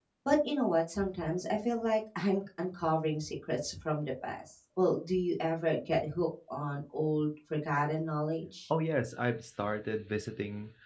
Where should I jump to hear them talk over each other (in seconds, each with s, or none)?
none